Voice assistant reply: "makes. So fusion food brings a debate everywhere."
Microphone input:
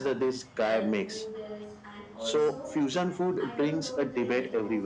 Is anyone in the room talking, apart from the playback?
Yes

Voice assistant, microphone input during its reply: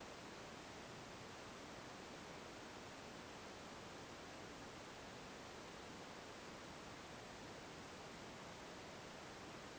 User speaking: No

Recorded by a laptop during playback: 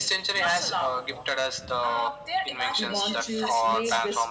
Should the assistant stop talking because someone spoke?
Yes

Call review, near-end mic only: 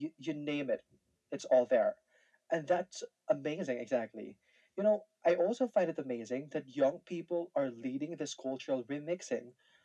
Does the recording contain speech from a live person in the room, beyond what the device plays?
No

